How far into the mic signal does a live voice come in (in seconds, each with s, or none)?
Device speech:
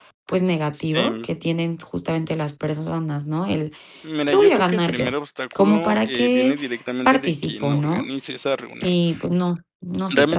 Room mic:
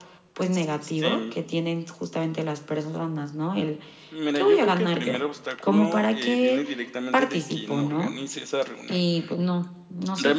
none